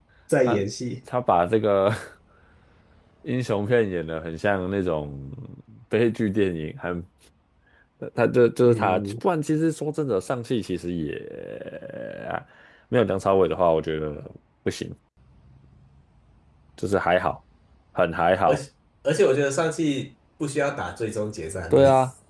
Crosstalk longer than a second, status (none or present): none